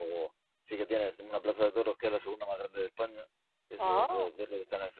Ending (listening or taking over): listening